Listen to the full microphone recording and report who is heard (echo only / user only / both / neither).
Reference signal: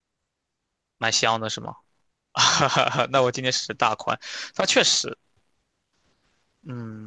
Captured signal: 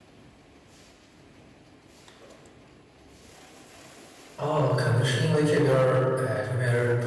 user only